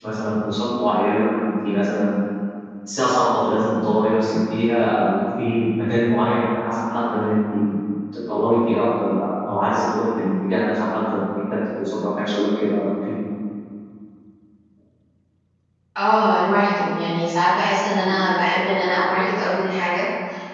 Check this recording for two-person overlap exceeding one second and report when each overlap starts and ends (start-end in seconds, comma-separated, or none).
none